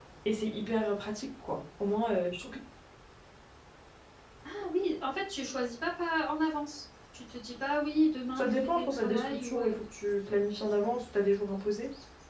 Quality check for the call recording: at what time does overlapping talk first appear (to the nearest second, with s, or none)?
8 s